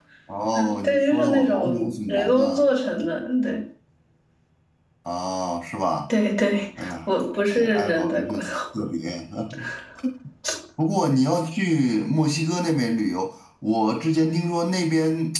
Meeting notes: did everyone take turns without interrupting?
No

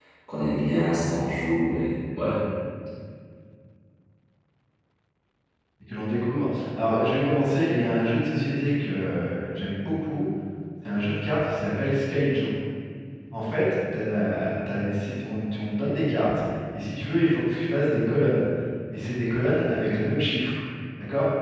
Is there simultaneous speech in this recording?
No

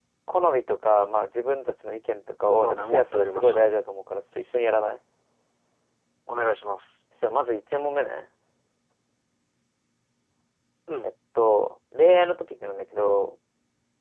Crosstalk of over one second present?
Yes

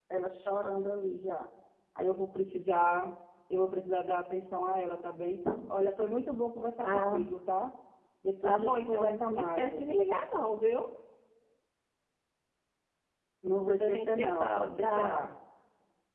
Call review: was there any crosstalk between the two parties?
Yes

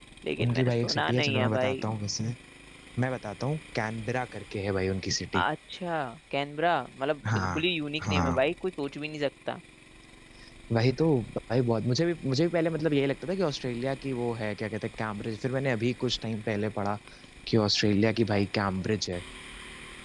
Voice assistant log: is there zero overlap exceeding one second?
No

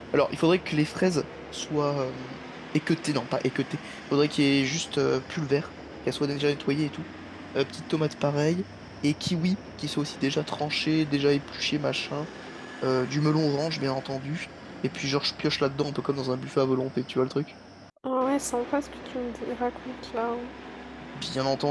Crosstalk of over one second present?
No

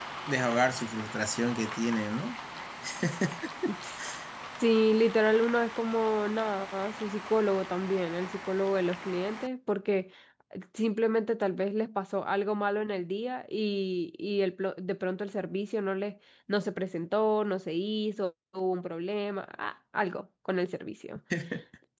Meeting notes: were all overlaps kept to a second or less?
Yes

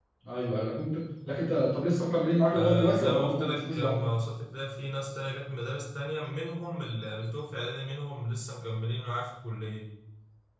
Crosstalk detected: Yes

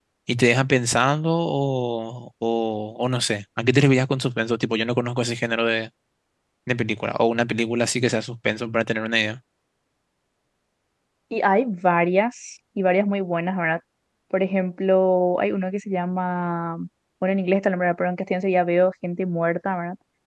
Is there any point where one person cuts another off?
No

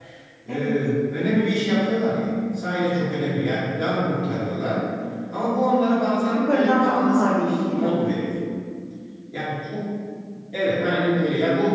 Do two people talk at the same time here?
Yes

